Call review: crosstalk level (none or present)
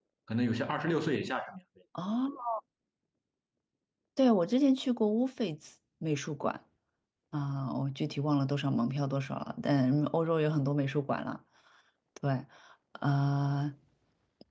none